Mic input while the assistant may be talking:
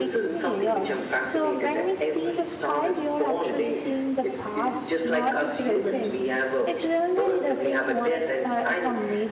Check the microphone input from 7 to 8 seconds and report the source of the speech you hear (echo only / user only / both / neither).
both